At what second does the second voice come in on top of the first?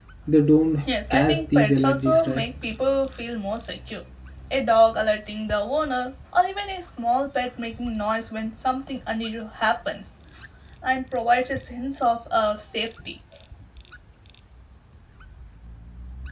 1.1 s

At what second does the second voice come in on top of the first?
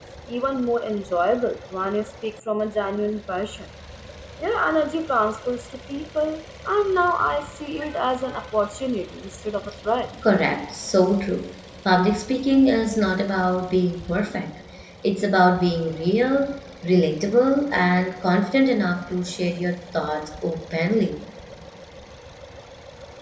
none

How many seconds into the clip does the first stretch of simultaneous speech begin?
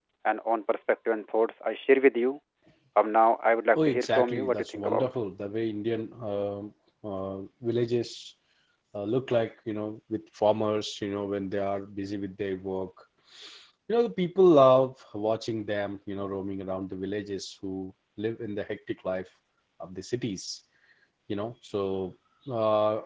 3.7 s

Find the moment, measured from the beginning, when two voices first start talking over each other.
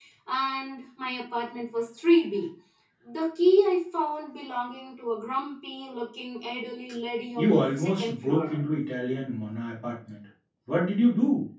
7.4 s

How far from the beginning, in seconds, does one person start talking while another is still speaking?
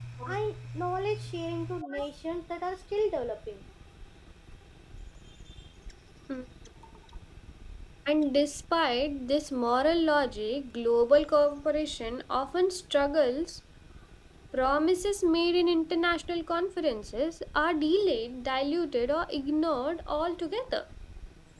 none

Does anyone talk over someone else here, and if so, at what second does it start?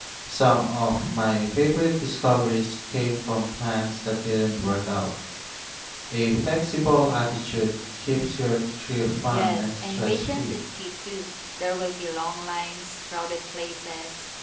9.3 s

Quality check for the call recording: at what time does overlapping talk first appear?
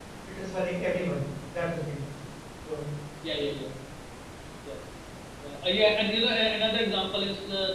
none

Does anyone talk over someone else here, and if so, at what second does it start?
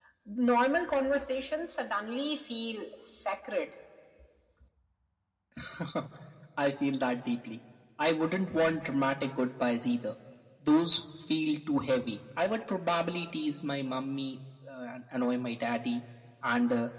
none

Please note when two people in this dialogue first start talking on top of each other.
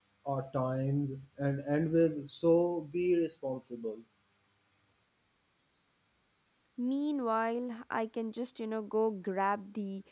none

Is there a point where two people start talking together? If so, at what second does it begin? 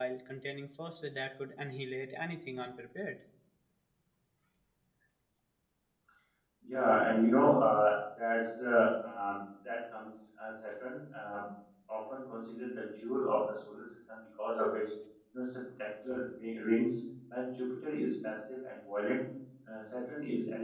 none

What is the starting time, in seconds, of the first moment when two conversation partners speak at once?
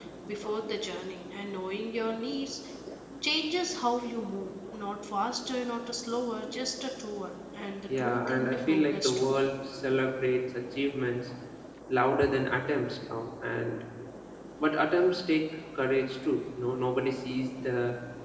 7.9 s

